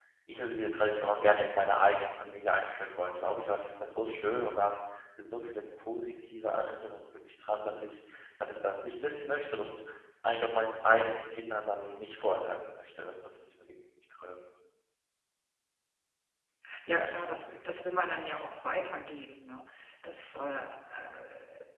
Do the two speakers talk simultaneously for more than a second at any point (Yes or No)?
No